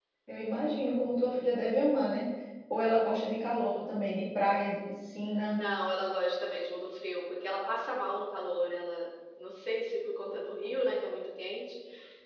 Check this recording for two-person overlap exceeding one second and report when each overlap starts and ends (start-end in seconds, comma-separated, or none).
none